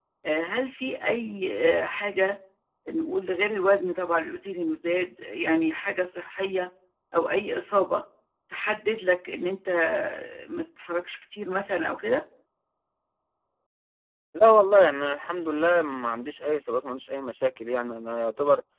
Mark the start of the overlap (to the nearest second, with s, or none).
none